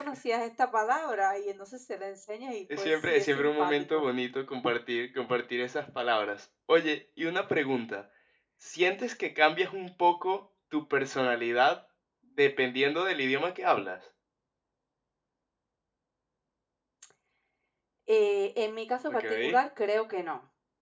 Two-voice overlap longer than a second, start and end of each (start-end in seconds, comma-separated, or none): 2.8-4.0